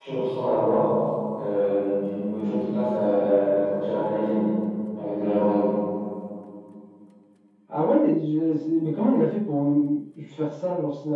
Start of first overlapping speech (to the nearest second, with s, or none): none